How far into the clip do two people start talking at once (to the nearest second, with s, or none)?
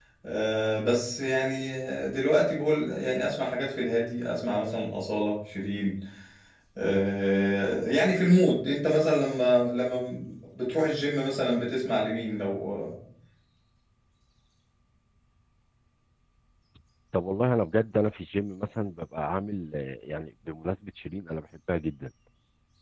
none